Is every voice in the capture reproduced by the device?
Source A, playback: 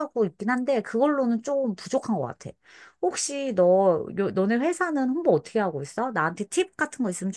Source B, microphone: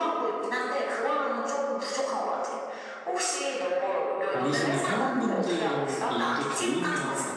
No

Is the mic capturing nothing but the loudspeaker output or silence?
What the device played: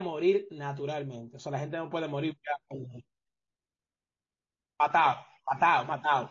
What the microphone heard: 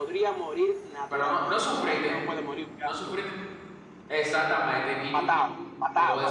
No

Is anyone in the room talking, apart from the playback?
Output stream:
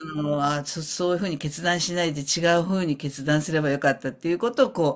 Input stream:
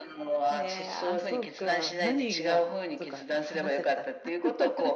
Yes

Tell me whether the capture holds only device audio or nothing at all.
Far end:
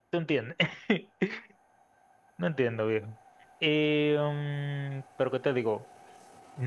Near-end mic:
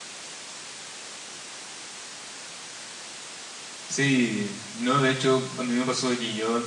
No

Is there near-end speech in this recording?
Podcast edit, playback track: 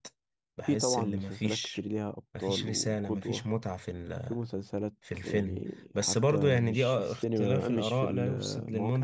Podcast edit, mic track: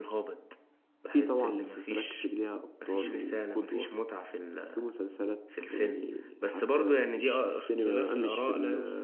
No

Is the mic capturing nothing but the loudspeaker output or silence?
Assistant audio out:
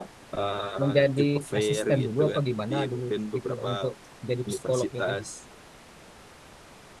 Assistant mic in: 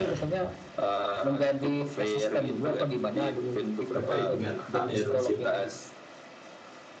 No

